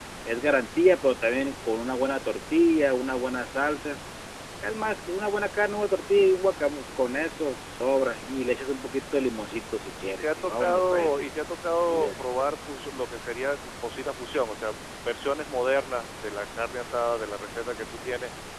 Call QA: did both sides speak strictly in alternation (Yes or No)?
No